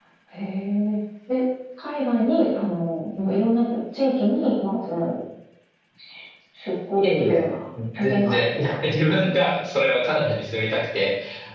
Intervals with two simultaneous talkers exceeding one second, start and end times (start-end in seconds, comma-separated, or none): 8.0-9.3